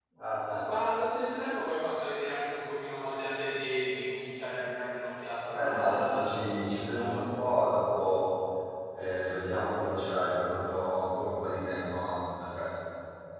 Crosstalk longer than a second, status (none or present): present